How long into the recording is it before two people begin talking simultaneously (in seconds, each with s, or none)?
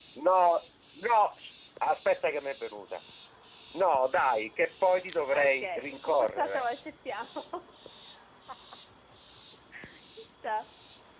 5.3 s